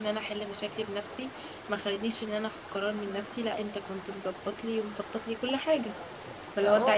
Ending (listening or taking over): taking over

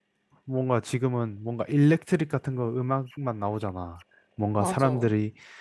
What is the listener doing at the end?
listening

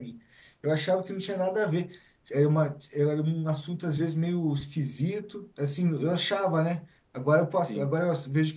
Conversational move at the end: listening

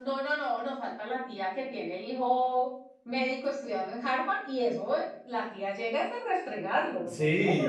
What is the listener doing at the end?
taking over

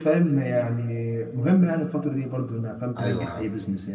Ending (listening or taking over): taking over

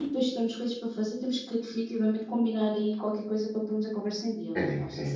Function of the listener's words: taking over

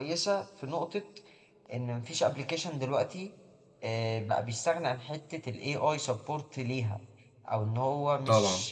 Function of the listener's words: listening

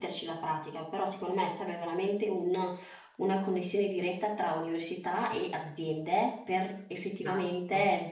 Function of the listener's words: listening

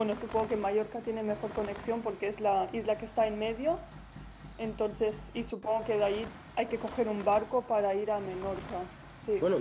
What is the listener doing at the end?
taking over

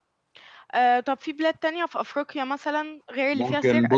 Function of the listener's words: taking over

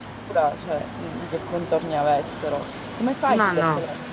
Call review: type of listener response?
listening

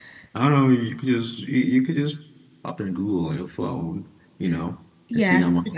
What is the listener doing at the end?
taking over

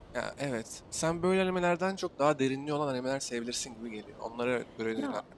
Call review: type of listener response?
taking over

